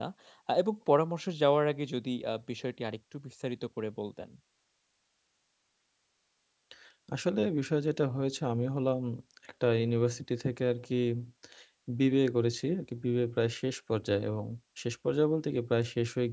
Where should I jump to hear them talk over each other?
none

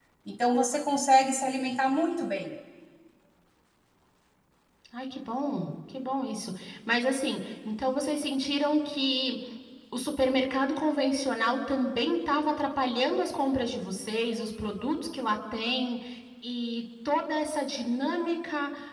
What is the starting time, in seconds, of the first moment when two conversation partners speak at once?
none

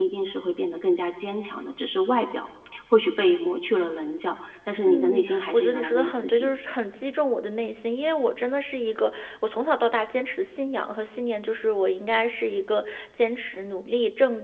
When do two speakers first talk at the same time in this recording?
5 s

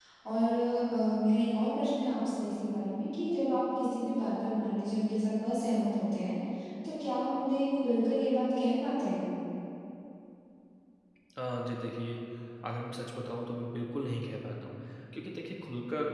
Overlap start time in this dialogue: none

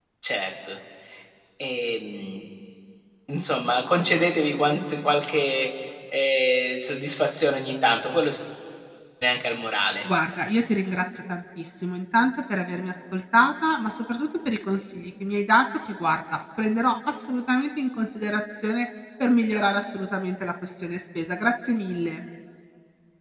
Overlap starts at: none

